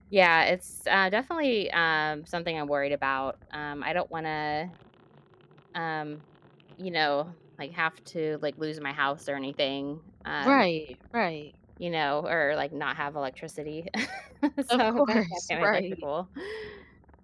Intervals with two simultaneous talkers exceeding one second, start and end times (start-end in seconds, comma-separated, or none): 14.7-16.1